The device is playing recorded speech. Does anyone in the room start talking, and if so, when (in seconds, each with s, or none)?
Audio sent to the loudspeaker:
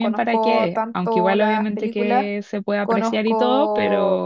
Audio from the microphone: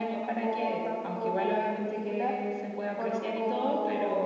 none